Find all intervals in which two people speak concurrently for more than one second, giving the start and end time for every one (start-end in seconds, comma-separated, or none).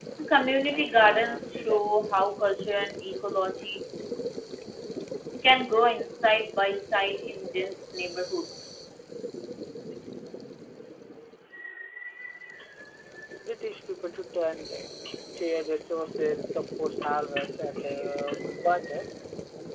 0.7-1.9